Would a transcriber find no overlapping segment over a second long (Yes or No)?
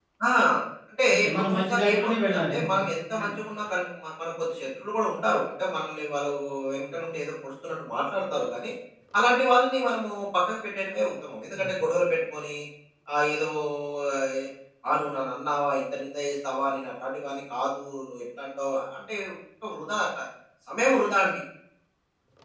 No